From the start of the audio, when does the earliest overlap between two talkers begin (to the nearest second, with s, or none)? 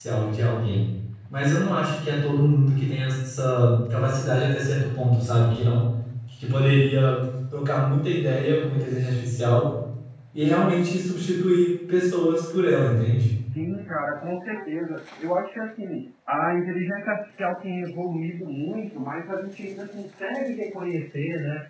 none